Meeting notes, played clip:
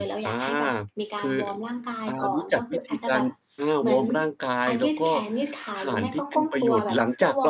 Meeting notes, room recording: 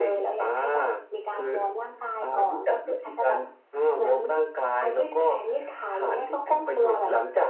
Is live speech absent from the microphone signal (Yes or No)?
Yes